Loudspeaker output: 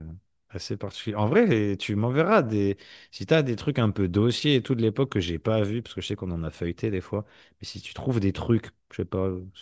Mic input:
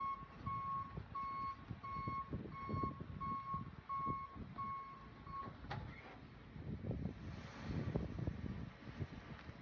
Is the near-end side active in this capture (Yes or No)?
No